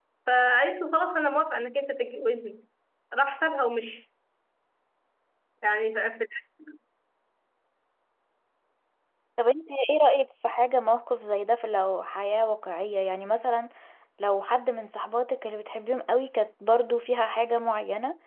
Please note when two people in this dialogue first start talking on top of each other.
none

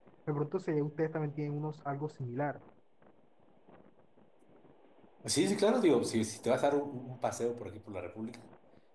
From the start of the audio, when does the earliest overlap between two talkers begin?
none

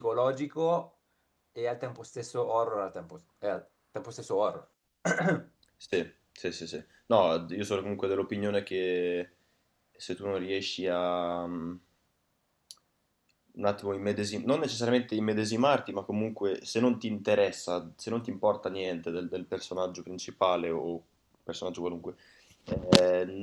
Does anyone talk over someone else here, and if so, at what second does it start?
none

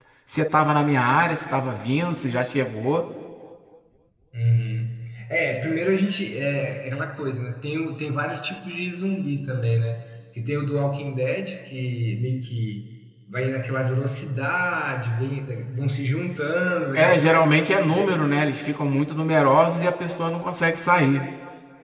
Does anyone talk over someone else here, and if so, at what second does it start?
17 s

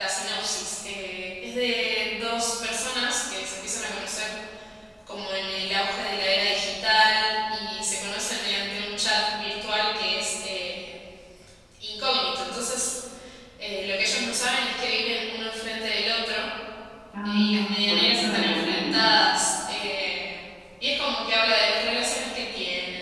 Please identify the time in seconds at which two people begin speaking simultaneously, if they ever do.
17 s

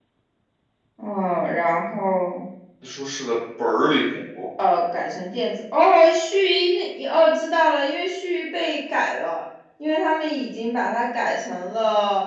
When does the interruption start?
none

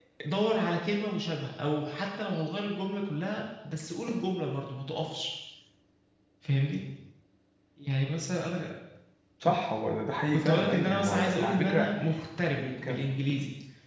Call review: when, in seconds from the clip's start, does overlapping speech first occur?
10 s

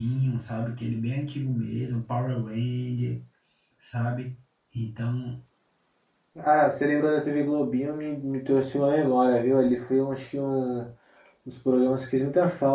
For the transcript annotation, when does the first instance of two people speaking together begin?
none

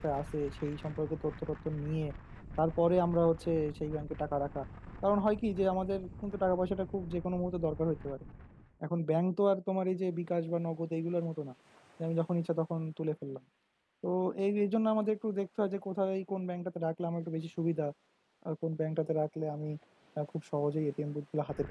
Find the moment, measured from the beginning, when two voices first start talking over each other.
none

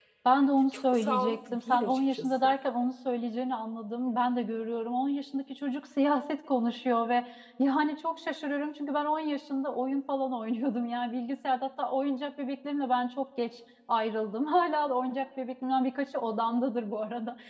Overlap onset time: 1 s

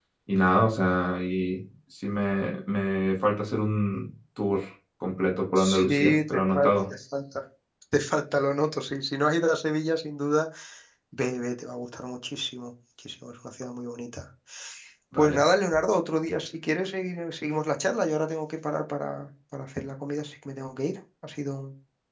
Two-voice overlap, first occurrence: 6 s

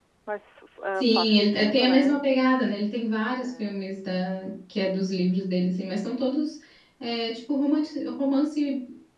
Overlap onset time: 1 s

